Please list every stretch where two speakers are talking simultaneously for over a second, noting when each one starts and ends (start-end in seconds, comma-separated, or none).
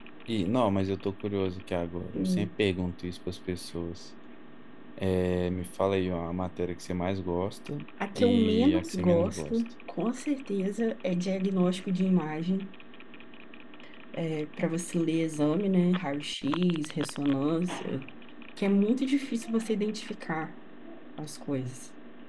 8.2-9.6